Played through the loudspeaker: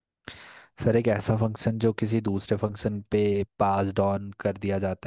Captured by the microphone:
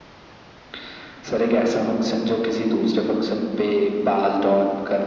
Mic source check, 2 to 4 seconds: echo only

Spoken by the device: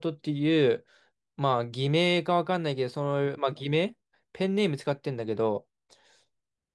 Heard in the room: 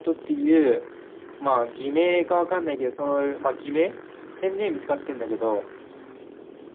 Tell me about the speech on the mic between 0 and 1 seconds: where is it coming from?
echo only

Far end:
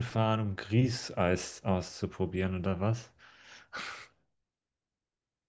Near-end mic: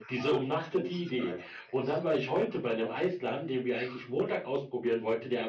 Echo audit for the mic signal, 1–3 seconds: both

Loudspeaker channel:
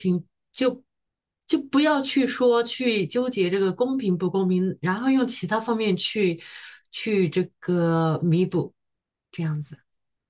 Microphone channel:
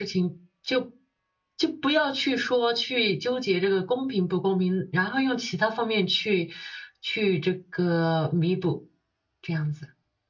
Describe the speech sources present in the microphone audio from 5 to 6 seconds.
echo only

